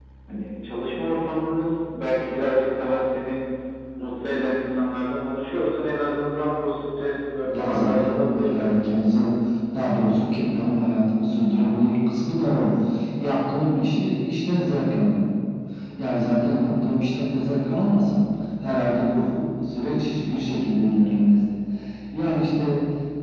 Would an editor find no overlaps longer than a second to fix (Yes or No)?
No